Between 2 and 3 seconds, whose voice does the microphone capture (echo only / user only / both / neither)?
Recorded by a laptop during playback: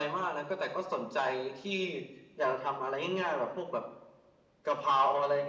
echo only